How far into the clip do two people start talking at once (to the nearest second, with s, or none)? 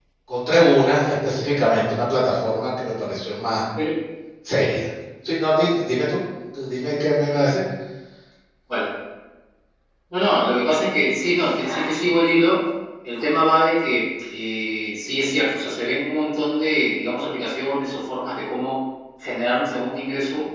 none